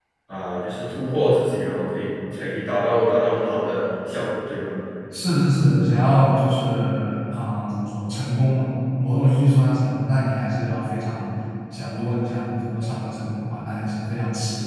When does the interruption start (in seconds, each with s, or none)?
none